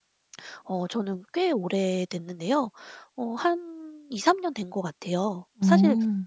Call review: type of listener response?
listening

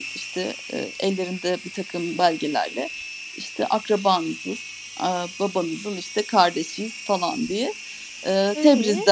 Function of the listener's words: listening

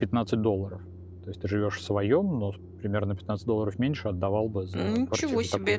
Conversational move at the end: taking over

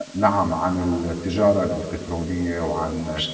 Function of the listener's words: listening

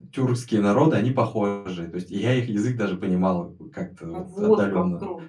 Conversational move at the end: taking over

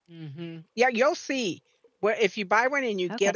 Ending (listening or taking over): taking over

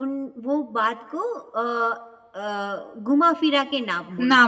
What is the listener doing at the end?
taking over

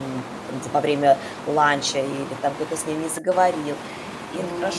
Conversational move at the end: taking over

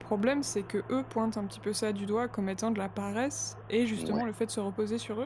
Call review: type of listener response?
listening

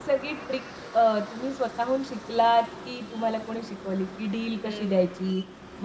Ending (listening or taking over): listening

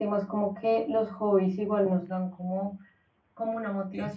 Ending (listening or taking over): listening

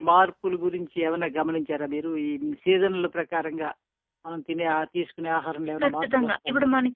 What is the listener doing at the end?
taking over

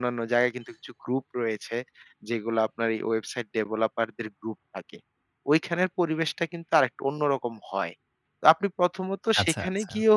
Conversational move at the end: listening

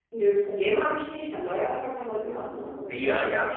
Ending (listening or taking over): taking over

